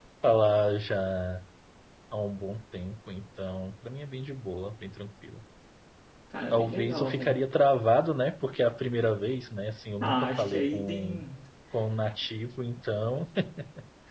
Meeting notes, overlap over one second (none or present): present